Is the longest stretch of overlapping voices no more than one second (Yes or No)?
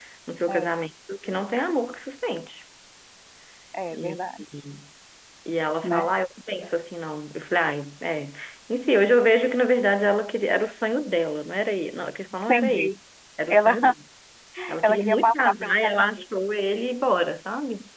No